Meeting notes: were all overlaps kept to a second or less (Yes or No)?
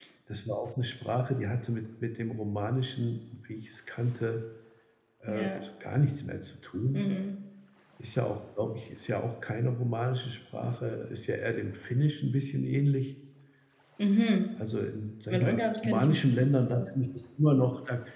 No